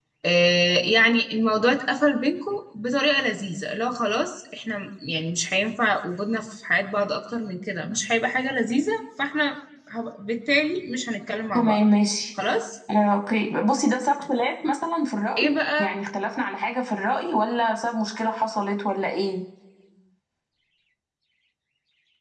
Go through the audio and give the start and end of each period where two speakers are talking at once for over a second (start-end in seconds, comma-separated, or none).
none